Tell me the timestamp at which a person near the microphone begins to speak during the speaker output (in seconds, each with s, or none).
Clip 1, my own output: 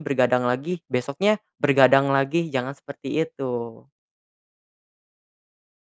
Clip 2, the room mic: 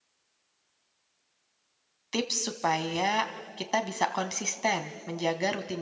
2.1 s